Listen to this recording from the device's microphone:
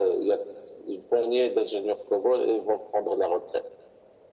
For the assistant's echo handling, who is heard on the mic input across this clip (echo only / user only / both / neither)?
echo only